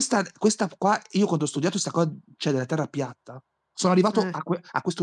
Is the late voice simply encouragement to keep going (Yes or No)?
Yes